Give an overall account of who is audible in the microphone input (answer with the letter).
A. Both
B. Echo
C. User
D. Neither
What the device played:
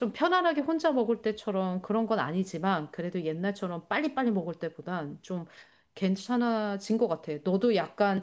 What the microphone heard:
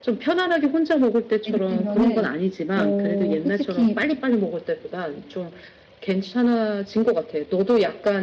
A